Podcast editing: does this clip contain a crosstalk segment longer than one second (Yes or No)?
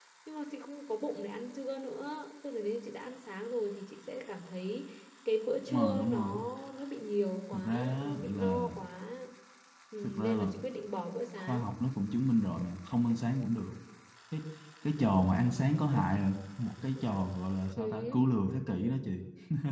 Yes